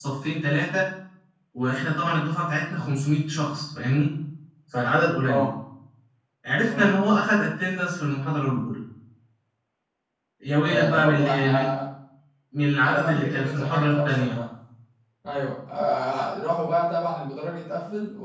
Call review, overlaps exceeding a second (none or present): present